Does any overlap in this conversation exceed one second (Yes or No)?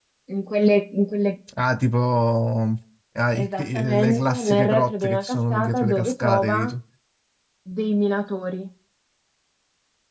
Yes